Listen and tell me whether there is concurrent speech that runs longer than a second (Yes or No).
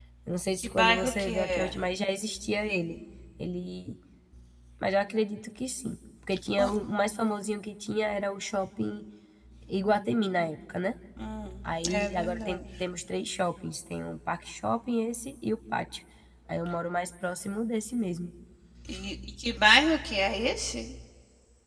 Yes